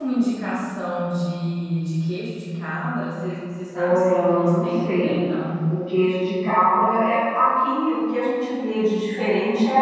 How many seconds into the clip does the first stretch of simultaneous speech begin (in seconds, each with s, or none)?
3.7 s